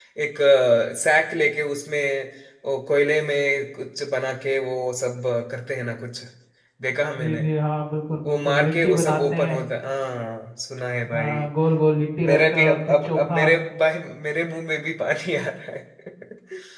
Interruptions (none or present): present